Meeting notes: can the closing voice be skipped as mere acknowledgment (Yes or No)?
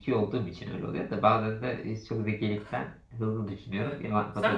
No